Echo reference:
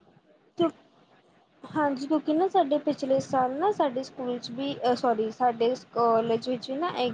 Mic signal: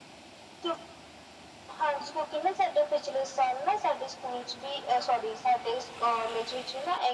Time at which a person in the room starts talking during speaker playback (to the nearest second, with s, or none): none